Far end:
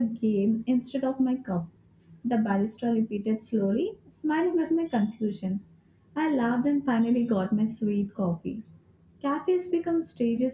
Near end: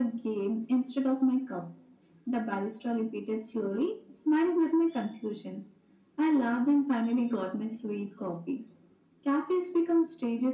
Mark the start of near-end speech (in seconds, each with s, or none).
none